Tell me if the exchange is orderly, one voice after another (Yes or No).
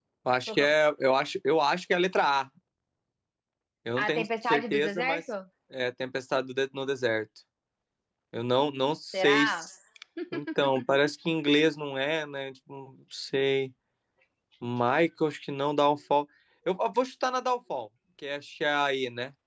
No